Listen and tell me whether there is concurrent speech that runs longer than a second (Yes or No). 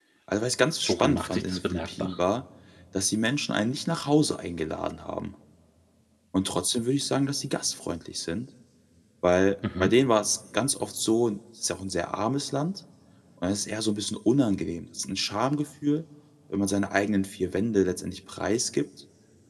Yes